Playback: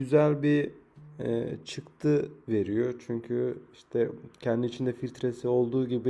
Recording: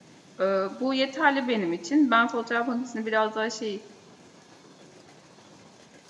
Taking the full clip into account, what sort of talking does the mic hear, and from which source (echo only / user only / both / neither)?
user only